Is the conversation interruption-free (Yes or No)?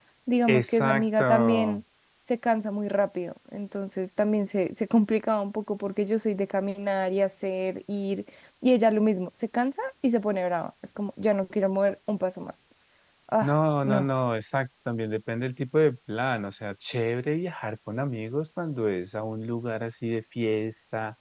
No